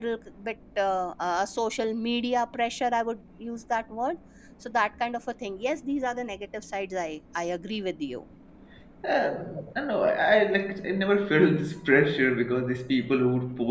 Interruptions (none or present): none